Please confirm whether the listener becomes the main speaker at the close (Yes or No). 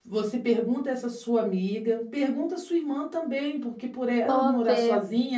No